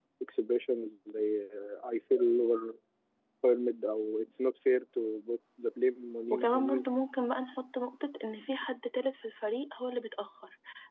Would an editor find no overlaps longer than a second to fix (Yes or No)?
Yes